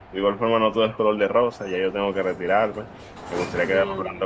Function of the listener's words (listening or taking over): listening